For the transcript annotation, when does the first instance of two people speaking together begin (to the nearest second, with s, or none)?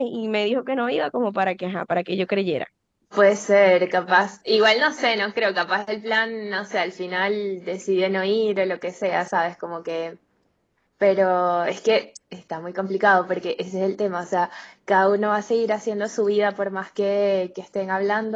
none